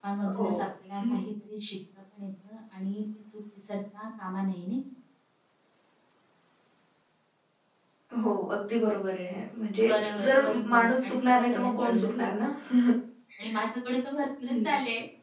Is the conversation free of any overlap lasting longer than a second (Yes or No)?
No